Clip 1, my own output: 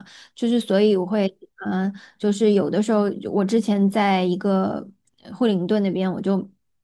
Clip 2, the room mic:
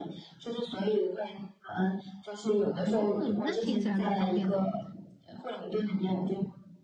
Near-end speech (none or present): present